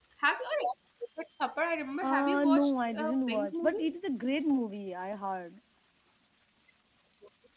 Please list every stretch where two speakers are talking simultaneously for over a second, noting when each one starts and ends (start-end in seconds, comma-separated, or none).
2.0-3.9